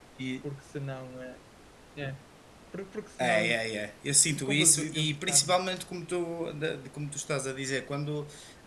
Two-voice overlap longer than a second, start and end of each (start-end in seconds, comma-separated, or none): 4.3-5.5